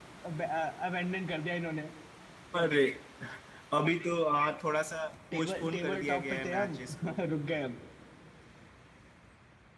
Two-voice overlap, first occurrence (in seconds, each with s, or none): 5.3 s